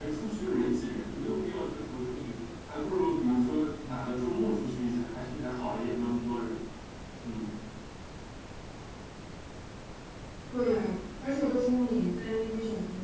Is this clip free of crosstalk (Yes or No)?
Yes